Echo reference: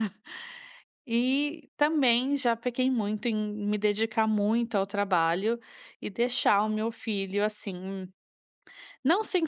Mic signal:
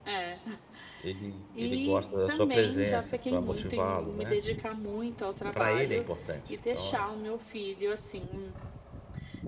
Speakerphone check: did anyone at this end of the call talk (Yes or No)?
Yes